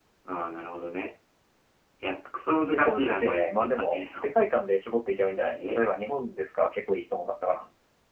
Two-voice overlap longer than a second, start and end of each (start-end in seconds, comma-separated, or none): 2.7-4.3